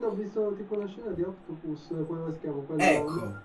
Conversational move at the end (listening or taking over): taking over